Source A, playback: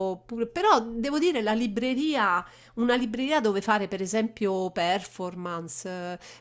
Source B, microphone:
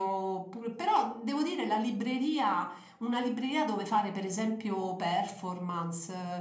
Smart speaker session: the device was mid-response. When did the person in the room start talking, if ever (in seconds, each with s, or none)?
none